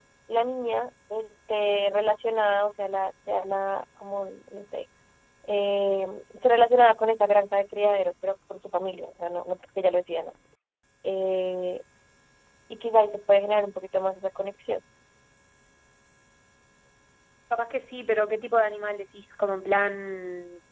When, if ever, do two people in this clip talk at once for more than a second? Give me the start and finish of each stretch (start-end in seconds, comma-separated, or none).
none